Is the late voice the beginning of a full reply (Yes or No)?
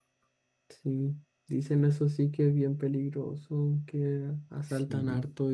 No